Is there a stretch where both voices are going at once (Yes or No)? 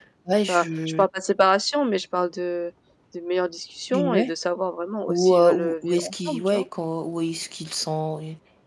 Yes